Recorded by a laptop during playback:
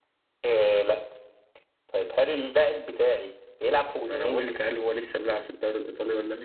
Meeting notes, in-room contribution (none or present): none